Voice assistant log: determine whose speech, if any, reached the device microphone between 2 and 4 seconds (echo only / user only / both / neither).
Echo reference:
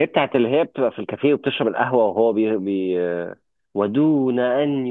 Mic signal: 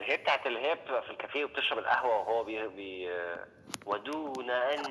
echo only